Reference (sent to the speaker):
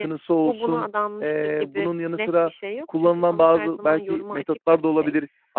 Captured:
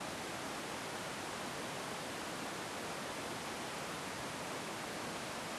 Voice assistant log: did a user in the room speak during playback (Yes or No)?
No